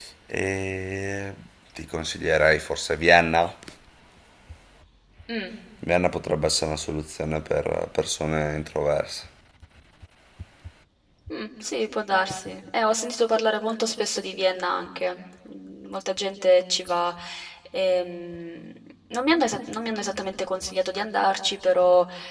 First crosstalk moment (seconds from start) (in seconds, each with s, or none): none